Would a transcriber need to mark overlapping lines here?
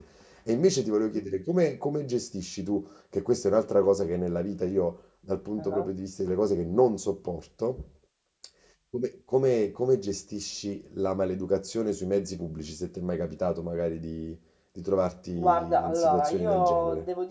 Yes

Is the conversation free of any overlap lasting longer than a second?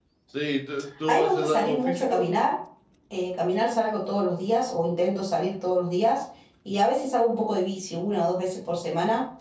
No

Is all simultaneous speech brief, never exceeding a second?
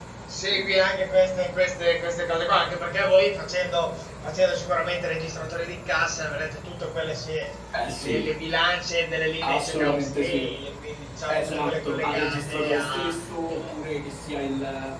No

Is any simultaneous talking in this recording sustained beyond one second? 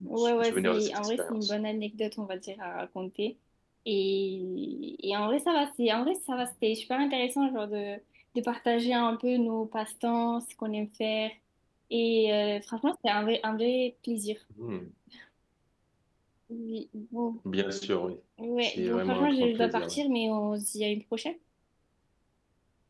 Yes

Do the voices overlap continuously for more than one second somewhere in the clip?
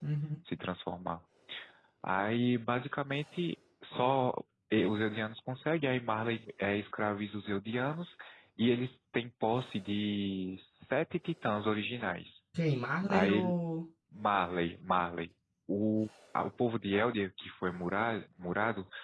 No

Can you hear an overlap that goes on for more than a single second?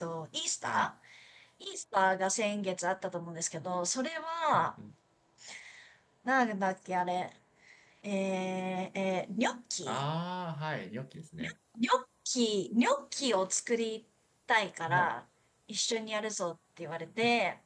No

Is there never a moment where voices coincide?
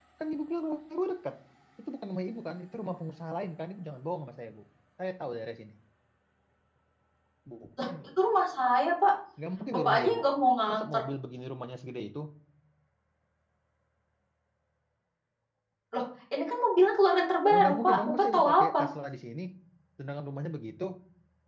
No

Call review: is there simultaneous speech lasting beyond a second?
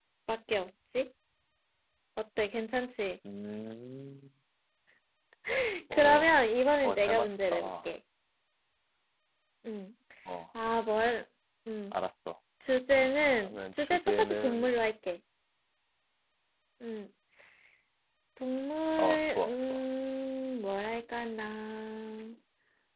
Yes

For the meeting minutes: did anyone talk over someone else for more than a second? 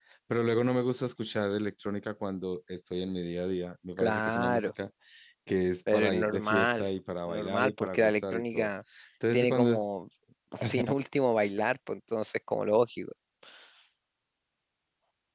Yes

